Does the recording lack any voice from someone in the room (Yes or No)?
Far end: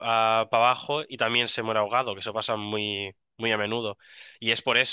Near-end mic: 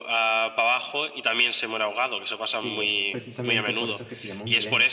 No